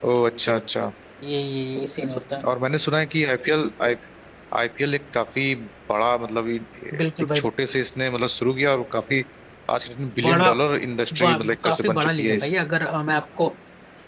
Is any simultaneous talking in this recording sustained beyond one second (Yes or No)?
Yes